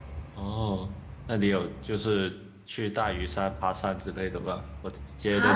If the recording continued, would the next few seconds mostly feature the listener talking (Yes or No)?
No